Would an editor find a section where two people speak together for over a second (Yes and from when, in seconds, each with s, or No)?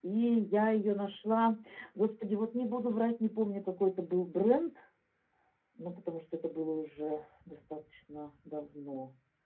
No